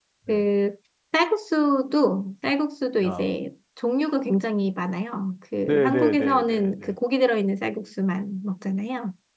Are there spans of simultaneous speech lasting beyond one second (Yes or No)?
Yes